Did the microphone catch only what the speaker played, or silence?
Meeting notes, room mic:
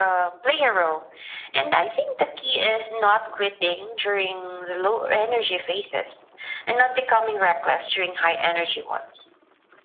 Yes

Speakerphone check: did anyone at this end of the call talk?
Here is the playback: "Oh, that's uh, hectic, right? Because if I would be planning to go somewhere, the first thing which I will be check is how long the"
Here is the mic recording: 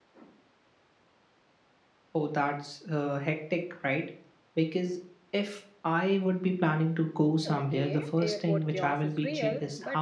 Yes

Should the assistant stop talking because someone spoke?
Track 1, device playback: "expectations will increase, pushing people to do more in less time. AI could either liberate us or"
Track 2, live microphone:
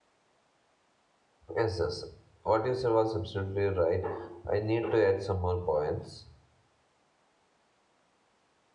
Yes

